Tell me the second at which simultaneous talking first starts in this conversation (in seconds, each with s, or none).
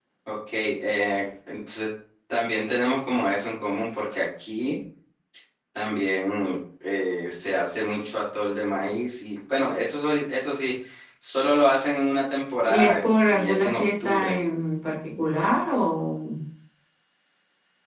12.7 s